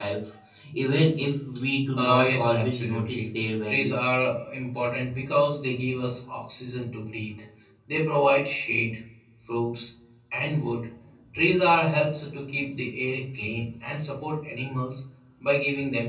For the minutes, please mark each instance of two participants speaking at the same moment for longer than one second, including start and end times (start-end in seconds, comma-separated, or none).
2.0-3.3